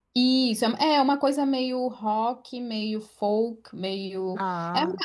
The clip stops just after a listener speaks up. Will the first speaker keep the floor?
Yes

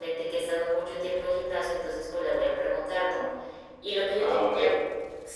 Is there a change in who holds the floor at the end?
No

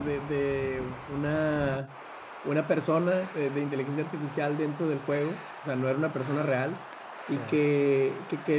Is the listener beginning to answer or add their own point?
No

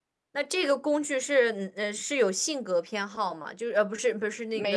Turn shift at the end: No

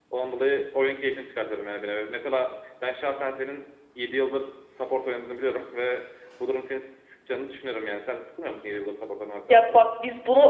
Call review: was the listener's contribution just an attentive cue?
No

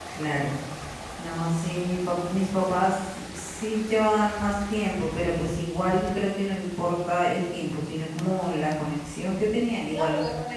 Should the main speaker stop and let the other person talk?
Yes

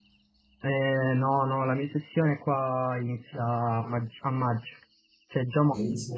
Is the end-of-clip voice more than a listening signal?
No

